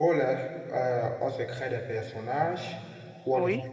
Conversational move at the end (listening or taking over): listening